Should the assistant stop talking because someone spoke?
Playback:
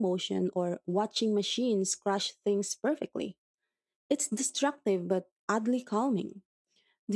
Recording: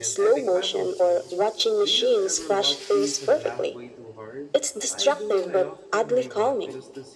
Yes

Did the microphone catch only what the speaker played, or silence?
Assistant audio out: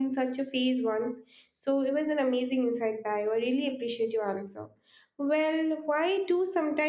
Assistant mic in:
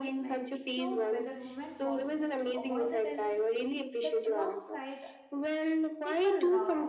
No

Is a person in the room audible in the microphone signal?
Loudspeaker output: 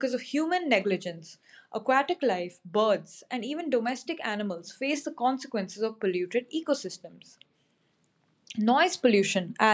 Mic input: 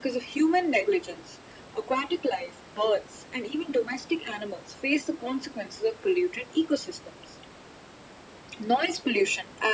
No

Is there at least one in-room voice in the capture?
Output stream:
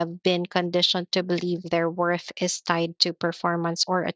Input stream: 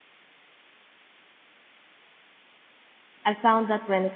Yes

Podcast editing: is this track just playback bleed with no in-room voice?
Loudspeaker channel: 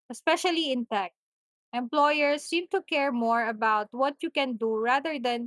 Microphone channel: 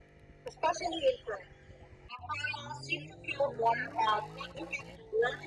Yes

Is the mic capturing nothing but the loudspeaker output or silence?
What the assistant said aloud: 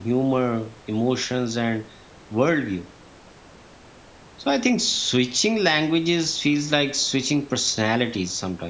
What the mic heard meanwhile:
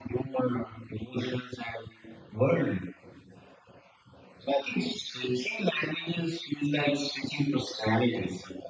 Yes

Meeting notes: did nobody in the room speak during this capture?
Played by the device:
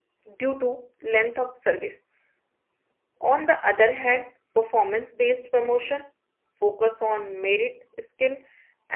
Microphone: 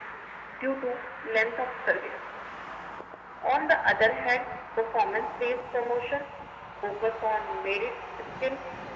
Yes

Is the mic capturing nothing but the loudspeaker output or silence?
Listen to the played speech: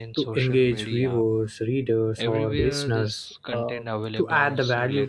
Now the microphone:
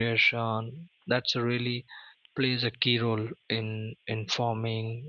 No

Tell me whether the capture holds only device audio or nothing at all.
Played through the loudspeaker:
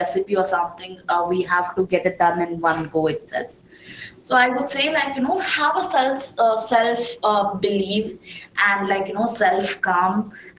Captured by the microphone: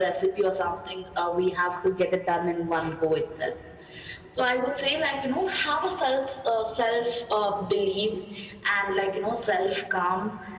Yes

